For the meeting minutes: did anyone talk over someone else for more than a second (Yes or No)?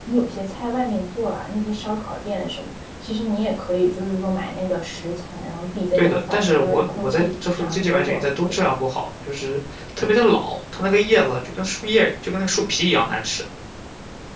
Yes